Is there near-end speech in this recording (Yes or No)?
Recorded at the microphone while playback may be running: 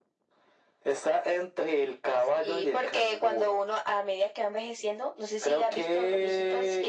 No